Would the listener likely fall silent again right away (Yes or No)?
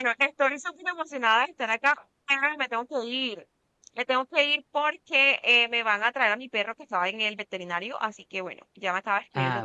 Yes